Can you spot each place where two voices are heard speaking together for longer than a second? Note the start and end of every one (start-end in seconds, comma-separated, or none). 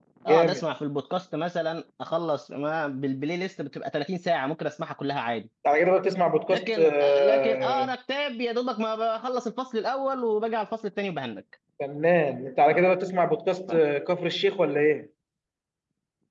6.5-7.9